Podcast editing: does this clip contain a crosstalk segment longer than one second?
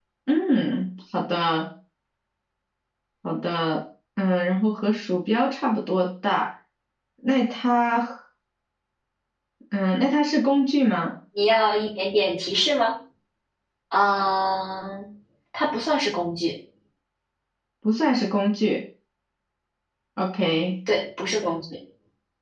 No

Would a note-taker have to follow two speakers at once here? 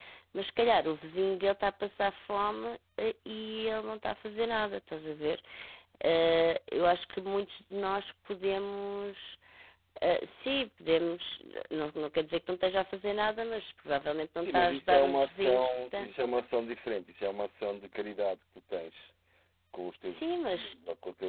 Yes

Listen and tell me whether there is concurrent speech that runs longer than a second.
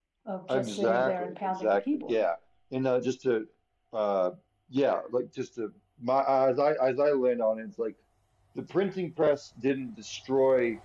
Yes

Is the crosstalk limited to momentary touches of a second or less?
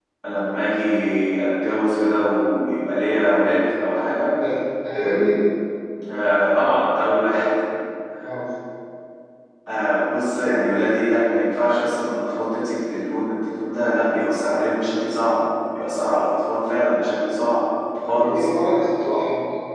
Yes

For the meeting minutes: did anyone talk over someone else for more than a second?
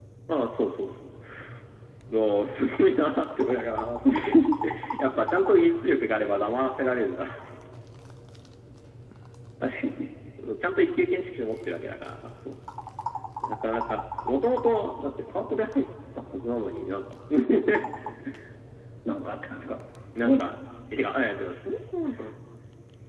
No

